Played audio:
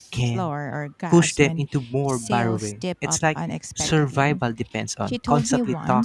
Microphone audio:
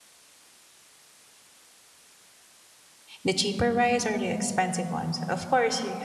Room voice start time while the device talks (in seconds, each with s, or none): 3.2 s